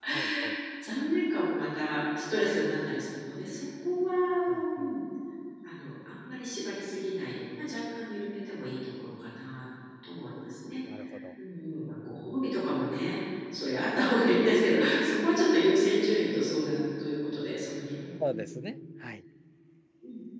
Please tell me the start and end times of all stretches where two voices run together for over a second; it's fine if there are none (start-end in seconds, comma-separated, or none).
none